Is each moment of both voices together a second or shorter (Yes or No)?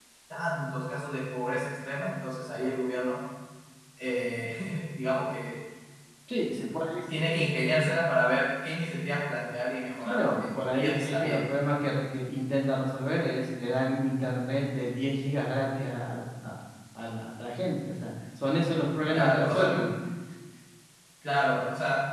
No